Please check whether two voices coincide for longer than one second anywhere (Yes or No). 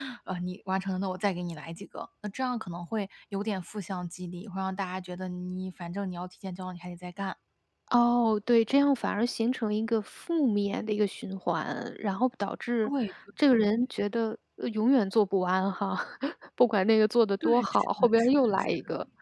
Yes